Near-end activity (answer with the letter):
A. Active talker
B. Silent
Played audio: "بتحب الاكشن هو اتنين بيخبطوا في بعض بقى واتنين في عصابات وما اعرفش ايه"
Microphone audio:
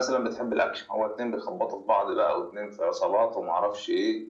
B